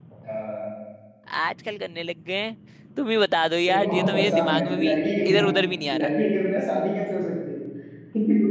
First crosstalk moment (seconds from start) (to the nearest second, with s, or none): 4 s